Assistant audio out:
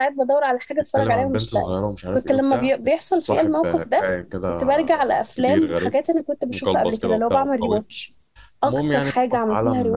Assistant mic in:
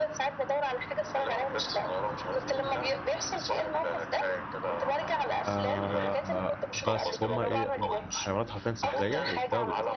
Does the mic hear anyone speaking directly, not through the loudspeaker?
Yes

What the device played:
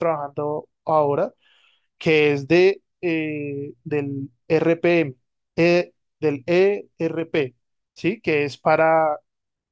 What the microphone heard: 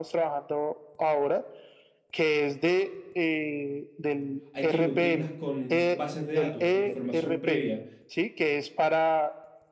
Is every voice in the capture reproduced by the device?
No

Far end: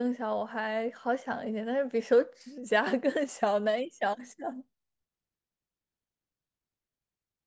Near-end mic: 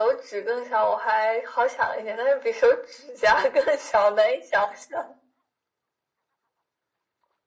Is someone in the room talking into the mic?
No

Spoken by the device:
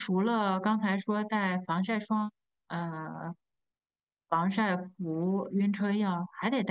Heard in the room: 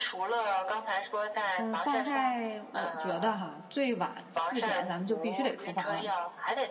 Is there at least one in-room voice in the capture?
Yes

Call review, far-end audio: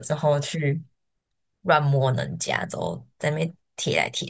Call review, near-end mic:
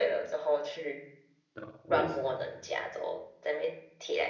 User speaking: Yes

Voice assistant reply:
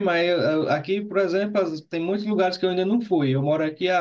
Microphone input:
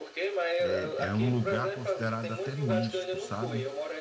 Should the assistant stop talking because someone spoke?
Yes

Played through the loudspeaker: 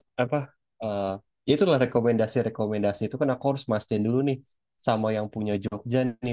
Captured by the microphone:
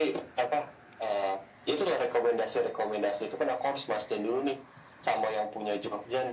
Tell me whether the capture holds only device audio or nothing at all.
Yes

